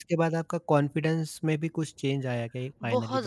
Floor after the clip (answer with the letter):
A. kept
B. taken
B